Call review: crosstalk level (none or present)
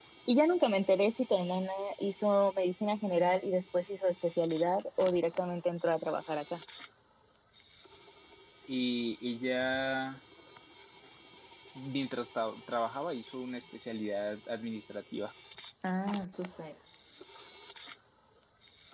none